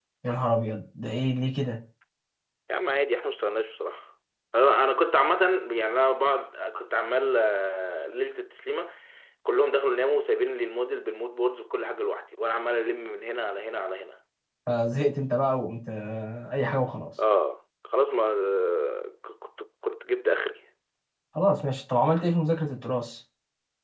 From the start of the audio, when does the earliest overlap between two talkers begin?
none

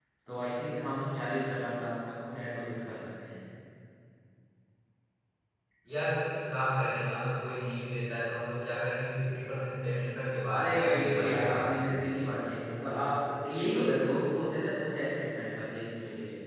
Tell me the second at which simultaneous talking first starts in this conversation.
10.6 s

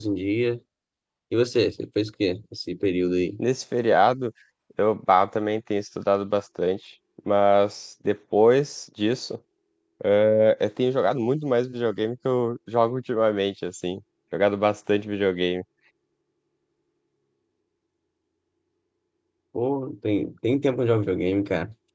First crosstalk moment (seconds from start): none

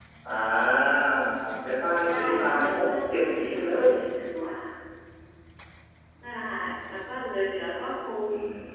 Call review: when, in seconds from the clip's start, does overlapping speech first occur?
2.0 s

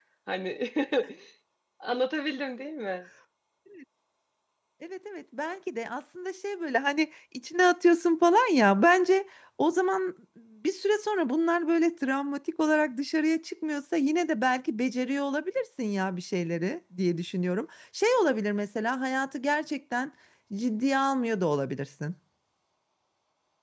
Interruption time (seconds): none

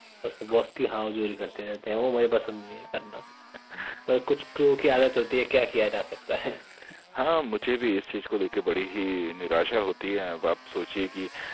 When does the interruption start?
none

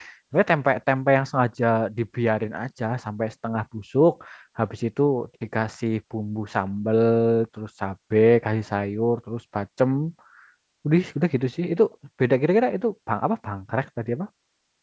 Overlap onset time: none

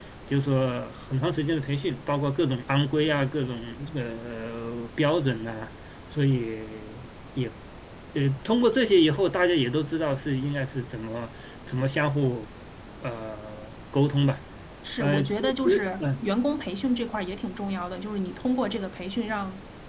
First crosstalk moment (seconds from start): 15.0 s

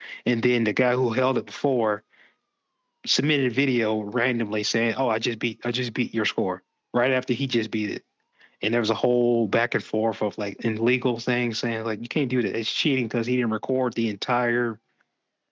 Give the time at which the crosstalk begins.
none

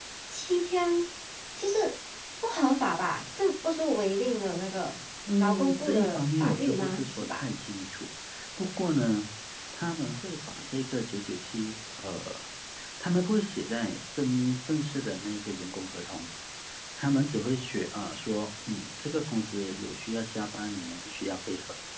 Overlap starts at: 5.4 s

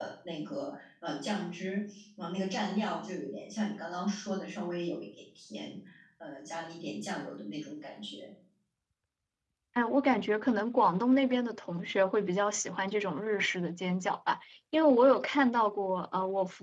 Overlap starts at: none

